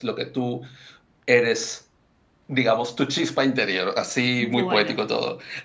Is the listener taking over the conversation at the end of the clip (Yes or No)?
No